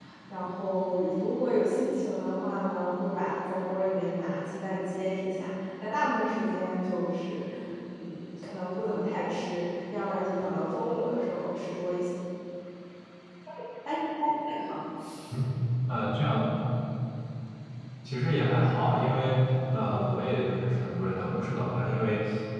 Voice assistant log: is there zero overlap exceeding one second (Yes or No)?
Yes